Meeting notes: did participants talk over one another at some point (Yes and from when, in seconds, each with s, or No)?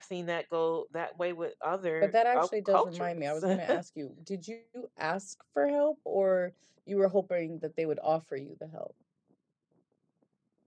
Yes, from 2.0 s